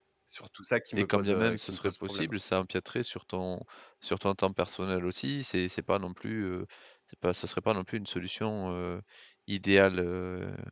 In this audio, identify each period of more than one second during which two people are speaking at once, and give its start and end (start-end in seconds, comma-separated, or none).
0.9-2.3